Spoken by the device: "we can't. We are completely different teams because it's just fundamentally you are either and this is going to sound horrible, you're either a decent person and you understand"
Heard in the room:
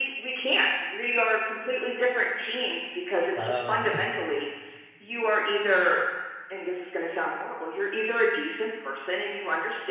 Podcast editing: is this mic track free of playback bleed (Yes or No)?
No